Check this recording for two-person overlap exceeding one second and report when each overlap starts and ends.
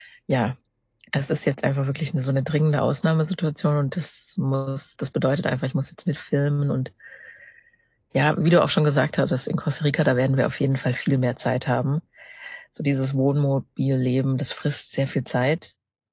none

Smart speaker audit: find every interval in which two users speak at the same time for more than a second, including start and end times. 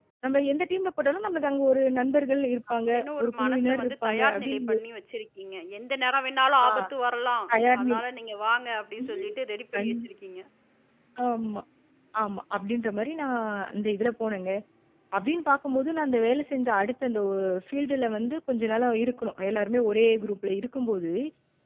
2.9-4.8

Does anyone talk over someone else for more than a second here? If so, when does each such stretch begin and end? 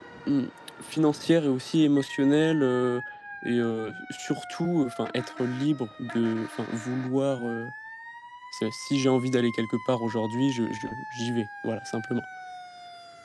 none

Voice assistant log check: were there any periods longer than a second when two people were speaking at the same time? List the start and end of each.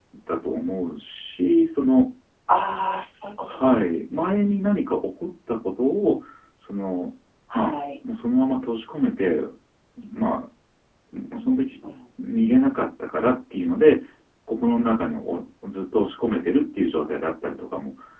none

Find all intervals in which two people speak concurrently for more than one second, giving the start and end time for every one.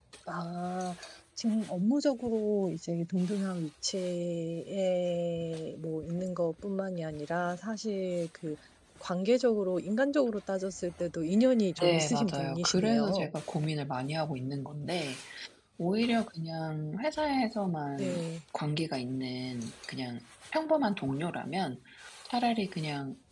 11.8-13.3

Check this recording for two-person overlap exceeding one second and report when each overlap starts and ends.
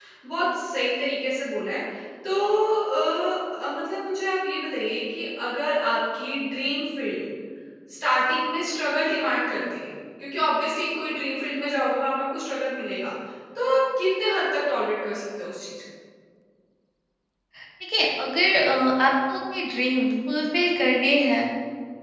none

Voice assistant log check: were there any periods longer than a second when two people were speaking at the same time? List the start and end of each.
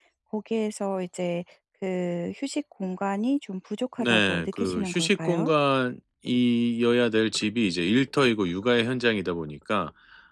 4.0-5.5

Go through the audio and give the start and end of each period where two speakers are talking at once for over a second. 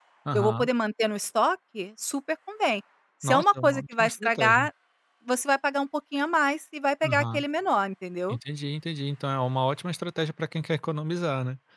3.2-4.7

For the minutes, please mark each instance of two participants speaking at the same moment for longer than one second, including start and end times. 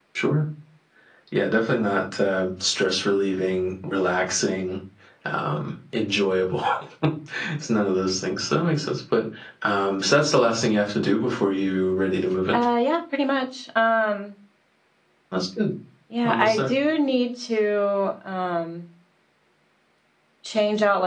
none

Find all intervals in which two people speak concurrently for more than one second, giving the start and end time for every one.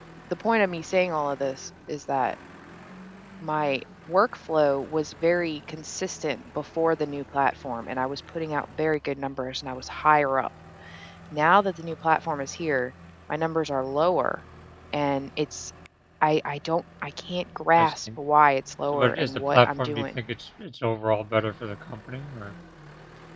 18.9-20.2

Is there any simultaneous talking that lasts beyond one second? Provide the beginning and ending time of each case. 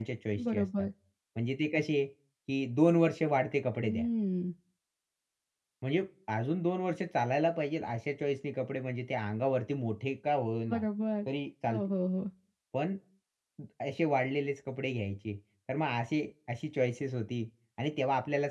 none

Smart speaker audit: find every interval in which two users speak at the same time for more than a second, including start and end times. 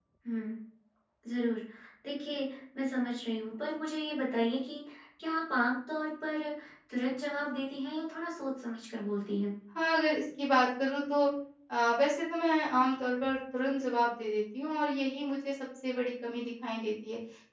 none

